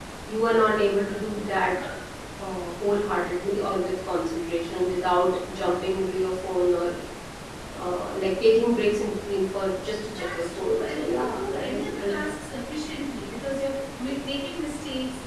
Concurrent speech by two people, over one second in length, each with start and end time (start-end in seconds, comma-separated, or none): 10.1-12.2